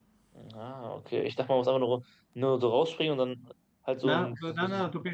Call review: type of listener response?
taking over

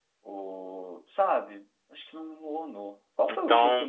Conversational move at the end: listening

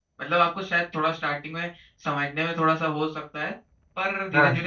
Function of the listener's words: listening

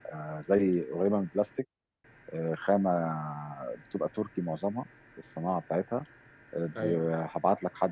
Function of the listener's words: listening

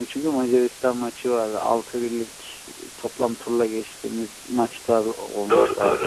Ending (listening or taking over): taking over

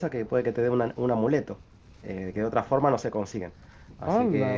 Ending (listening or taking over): taking over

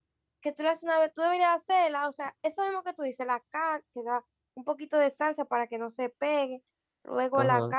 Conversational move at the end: taking over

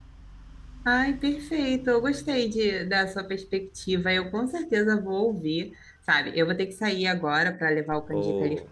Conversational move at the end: listening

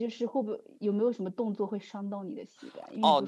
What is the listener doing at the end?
taking over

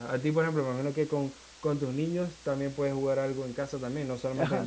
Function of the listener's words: taking over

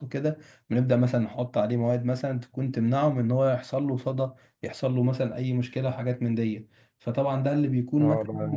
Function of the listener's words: taking over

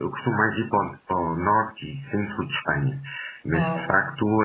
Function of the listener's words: listening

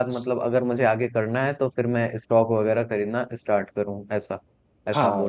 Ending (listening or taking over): taking over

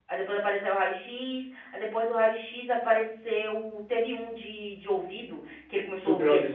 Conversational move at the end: listening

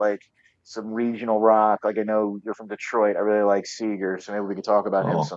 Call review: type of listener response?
taking over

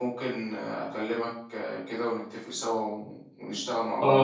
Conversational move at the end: taking over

